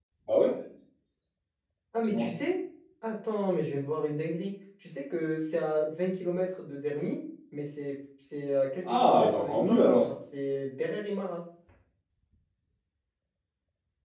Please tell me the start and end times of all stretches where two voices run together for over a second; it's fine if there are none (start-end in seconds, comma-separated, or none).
8.8-10.1